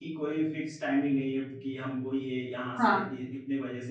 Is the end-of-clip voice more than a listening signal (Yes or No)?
No